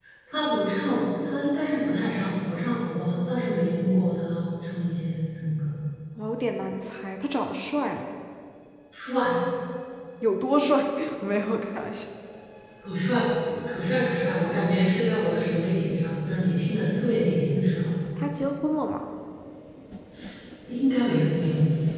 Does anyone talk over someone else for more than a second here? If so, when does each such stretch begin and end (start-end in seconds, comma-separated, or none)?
none